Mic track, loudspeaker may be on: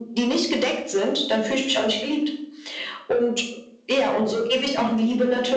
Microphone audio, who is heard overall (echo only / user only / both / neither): echo only